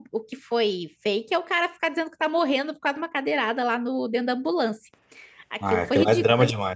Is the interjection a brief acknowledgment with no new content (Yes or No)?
No